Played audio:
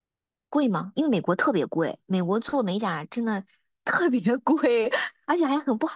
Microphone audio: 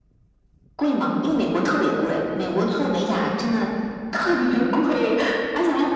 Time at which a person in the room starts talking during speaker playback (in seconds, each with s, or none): none